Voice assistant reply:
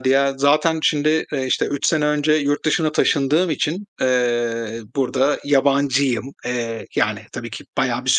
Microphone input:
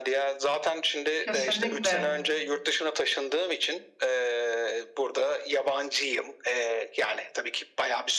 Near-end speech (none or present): present